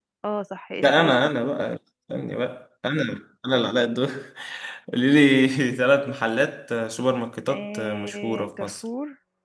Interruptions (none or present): present